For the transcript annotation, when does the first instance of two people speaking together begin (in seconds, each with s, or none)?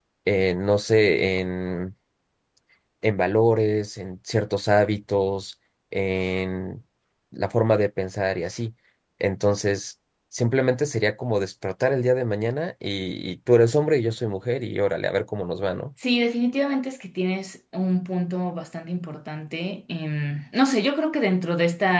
none